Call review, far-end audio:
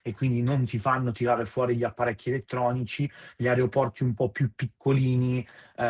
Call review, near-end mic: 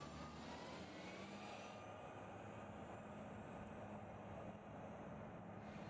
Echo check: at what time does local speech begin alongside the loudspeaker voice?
none

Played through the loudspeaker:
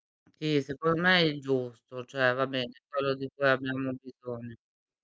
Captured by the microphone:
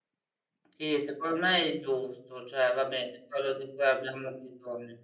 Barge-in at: none

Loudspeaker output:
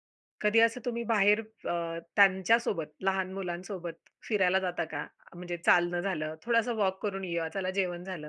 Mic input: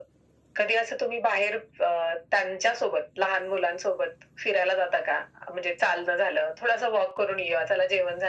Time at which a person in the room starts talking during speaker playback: none

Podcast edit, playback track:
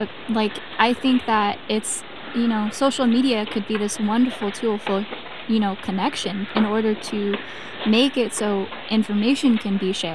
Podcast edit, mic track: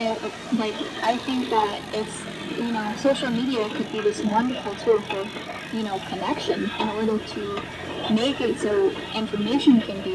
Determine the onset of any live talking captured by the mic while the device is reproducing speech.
none

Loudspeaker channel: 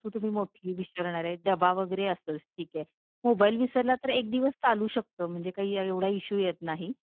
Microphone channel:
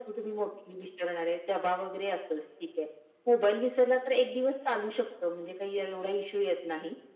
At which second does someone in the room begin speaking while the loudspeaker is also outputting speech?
none

